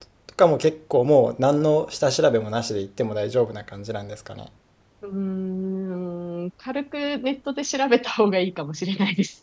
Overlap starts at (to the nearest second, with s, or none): none